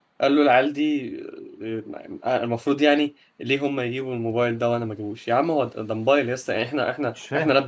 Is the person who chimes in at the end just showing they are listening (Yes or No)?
Yes